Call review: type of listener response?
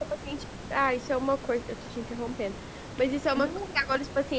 listening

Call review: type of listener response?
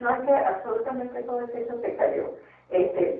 listening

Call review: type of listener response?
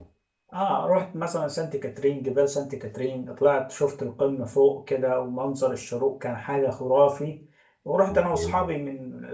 listening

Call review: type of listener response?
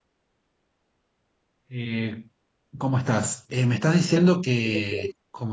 listening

